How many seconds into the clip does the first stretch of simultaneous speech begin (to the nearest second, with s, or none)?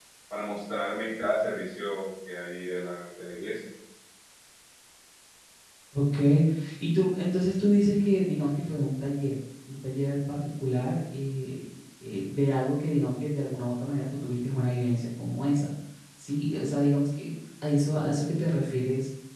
none